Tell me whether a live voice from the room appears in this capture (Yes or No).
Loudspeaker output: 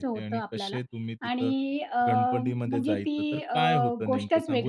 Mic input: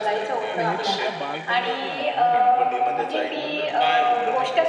Yes